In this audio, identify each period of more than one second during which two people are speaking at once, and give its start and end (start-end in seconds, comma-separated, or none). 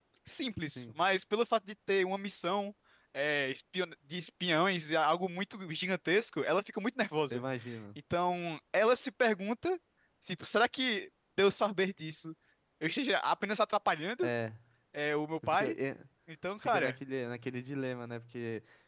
none